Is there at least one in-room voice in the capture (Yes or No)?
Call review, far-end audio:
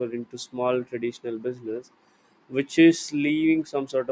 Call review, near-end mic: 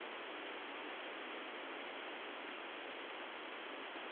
No